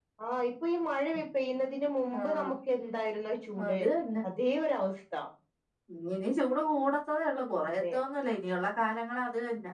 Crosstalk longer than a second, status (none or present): none